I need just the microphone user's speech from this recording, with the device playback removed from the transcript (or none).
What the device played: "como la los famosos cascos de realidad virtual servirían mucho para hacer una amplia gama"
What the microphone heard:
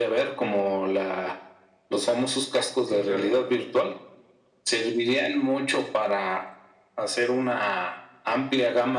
Sí, claro.